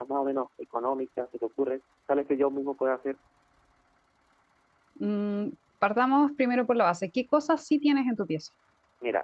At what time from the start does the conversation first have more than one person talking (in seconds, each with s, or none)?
none